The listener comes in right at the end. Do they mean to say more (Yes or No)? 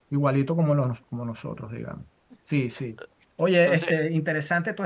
No